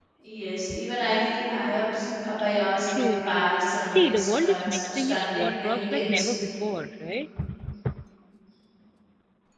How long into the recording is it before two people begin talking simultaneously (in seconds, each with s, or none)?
2.8 s